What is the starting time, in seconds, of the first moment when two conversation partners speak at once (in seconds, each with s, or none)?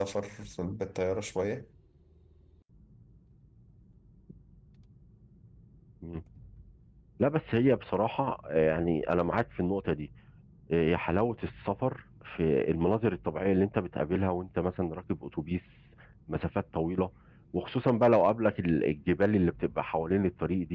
none